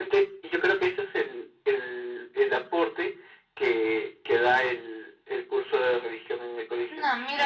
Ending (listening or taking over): taking over